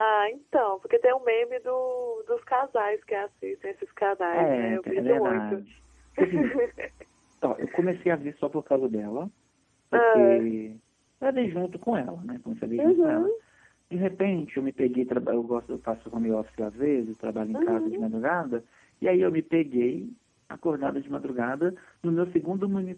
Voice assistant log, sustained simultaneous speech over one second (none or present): present